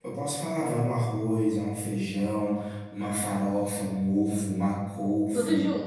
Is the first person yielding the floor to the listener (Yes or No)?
No